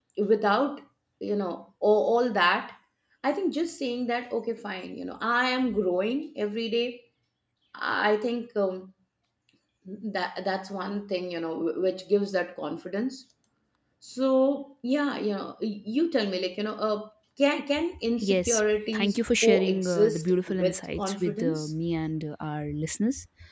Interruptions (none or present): present